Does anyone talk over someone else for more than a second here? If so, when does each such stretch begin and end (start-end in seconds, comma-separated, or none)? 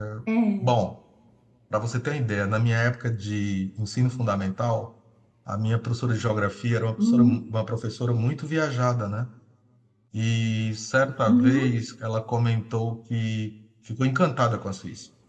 none